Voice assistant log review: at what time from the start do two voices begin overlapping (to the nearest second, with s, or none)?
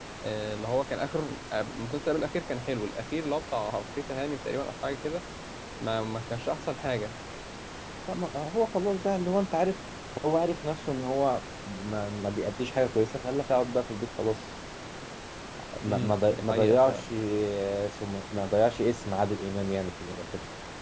16 s